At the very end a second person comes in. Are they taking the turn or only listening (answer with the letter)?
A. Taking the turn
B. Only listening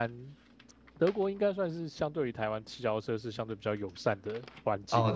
A